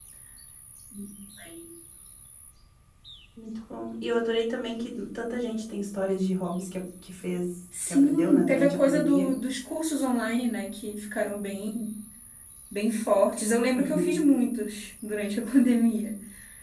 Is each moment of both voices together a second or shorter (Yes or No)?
No